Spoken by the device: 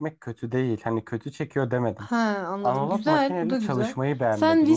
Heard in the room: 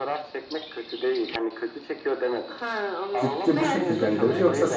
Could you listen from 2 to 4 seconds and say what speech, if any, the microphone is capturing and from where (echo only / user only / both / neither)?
both